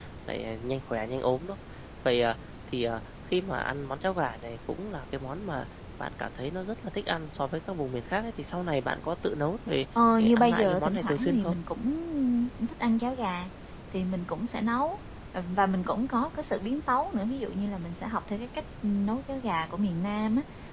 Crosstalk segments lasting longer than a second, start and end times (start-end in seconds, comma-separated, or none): 10.2-11.6